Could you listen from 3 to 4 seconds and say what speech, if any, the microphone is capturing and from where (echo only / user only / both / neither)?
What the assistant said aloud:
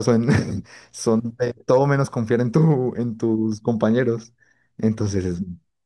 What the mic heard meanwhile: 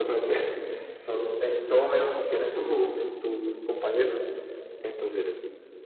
echo only